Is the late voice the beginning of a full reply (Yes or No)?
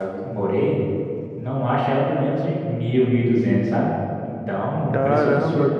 Yes